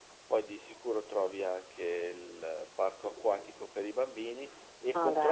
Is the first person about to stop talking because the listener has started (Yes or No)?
No